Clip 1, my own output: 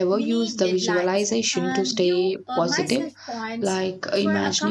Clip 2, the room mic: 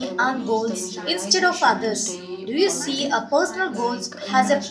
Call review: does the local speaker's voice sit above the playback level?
Yes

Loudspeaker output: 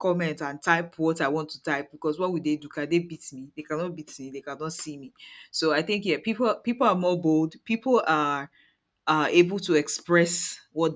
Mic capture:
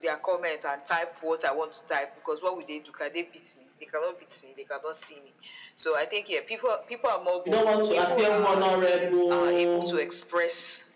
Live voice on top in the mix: Yes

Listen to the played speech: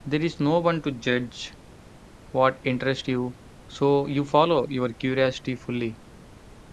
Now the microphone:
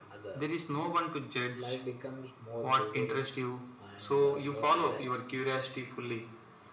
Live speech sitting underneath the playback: Yes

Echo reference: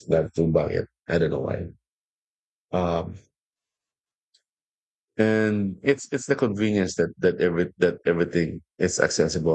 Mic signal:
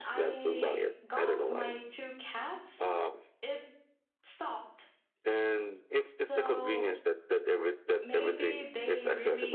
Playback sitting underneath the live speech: No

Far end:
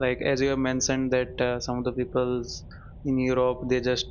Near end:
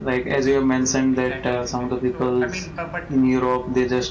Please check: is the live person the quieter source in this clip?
Yes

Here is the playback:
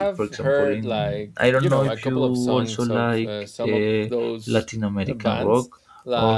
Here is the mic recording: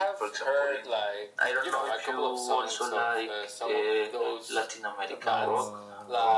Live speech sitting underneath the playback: Yes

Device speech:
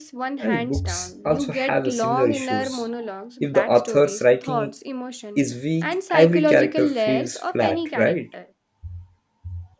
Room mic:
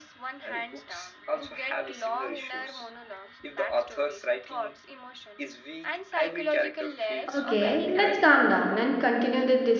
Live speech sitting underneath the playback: No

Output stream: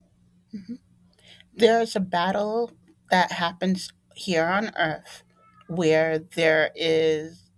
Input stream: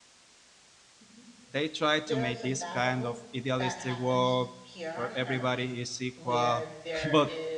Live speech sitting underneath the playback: No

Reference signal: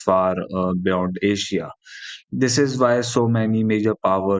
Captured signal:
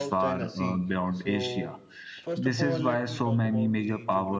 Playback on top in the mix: Yes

